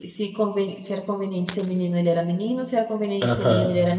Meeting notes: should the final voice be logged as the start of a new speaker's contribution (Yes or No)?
No